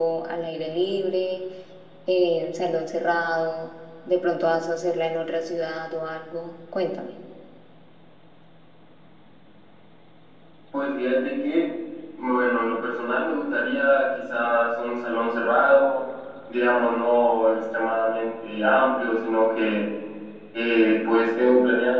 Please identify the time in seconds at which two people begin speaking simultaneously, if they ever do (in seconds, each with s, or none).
none